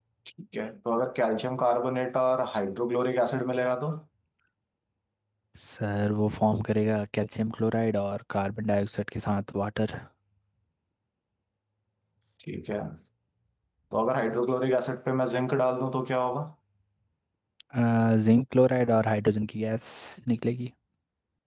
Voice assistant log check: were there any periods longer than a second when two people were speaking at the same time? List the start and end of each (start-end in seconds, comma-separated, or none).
none